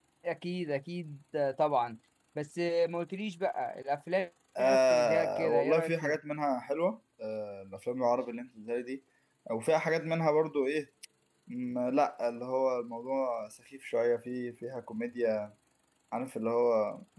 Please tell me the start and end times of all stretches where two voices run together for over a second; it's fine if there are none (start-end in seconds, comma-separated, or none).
4.6-6.2